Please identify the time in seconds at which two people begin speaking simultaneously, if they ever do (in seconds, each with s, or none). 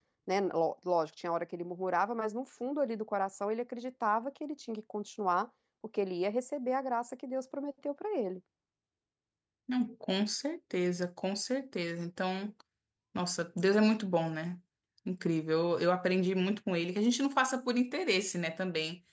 none